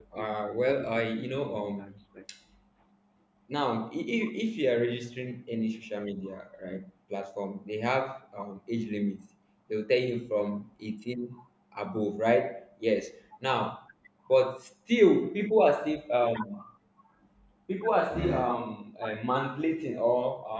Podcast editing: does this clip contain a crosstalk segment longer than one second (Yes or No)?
Yes